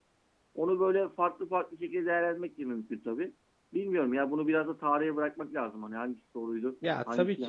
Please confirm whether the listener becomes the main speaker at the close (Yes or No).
Yes